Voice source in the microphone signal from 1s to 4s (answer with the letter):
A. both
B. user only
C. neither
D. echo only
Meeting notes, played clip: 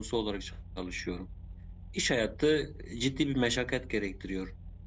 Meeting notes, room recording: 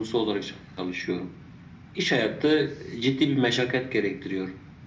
D